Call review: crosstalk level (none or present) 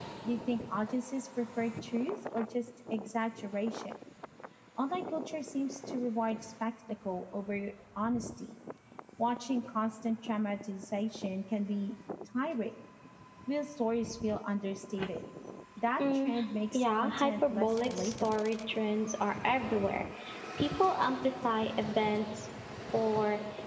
present